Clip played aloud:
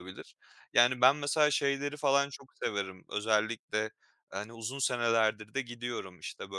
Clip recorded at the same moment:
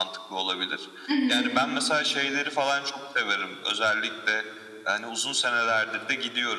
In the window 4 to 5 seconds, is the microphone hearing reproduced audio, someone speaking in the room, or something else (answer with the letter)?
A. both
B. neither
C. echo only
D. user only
C